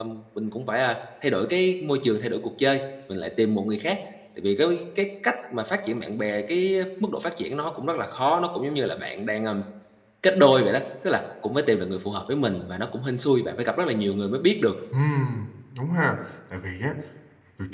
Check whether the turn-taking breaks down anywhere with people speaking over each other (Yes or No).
No